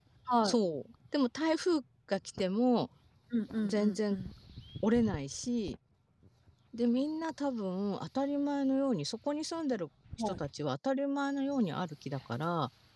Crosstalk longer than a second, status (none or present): none